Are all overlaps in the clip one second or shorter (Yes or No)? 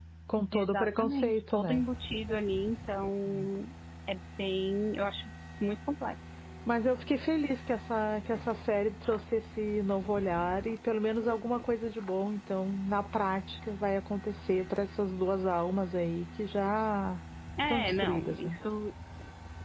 No